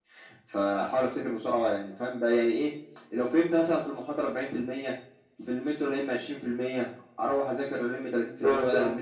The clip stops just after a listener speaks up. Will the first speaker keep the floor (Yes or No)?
Yes